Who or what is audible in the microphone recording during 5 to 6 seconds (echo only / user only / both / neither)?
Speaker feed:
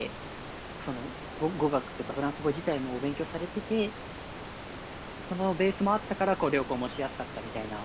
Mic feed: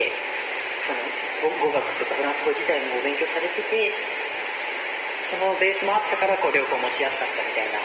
echo only